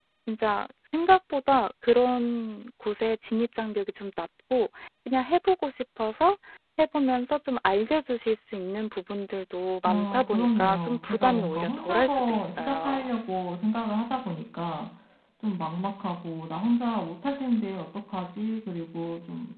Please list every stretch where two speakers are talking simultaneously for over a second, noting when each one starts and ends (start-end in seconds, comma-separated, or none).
9.8-13.1